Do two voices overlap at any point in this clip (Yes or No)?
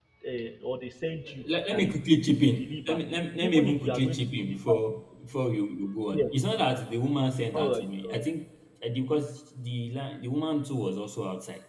Yes